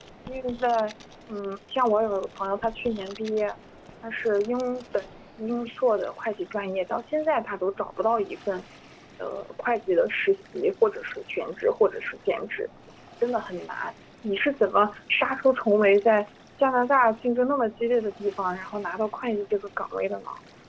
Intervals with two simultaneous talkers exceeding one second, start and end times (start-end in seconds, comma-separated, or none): none